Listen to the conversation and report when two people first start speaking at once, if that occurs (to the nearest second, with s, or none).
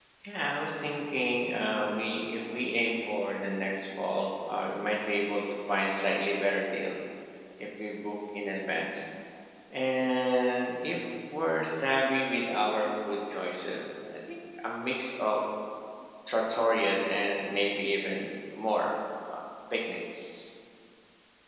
none